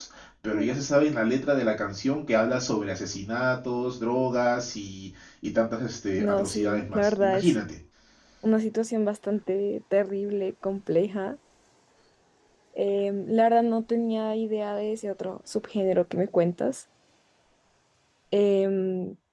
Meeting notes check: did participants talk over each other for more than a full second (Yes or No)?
Yes